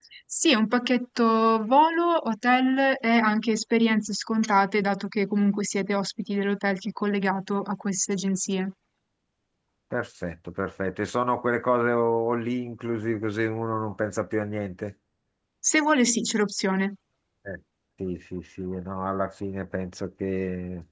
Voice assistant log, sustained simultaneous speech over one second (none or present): none